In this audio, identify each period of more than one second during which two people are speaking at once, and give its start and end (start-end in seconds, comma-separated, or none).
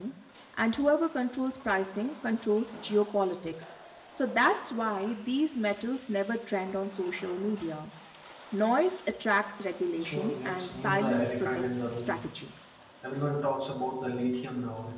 10.0-12.2